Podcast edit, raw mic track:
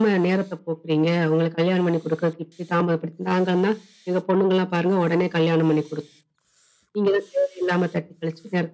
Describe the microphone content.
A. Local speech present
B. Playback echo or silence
B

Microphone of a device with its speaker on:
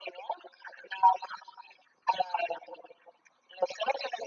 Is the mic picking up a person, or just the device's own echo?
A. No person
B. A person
A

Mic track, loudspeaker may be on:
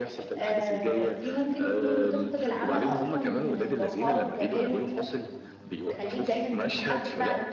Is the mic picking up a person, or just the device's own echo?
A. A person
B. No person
A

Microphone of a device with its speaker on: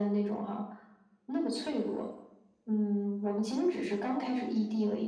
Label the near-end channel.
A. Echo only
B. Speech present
A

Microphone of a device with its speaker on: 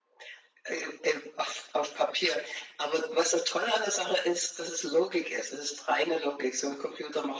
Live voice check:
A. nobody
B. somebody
A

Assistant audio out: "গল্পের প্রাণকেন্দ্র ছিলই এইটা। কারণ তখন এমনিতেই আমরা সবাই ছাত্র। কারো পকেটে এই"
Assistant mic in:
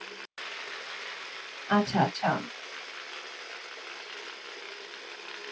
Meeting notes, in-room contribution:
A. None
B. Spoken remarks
B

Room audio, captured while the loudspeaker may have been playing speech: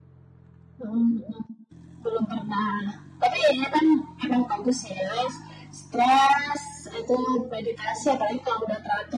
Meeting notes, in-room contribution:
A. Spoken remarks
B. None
B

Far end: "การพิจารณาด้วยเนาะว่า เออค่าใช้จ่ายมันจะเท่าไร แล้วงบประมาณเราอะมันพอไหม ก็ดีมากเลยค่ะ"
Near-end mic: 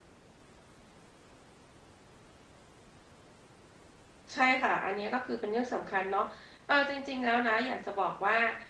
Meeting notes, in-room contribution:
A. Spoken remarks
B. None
A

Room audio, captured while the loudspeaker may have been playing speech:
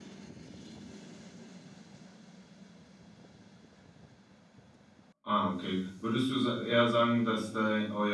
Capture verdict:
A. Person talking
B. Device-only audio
A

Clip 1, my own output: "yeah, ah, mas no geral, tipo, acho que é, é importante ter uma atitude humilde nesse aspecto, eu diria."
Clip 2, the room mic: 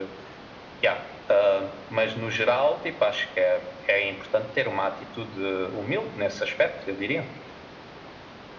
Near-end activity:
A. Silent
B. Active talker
A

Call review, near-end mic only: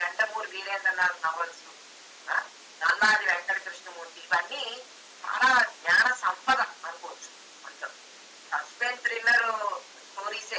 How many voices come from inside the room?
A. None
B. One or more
A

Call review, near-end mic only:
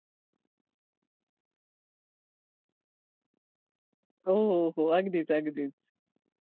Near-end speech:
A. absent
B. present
B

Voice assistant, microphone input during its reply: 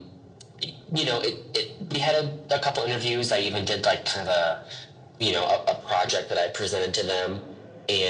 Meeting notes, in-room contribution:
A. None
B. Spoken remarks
A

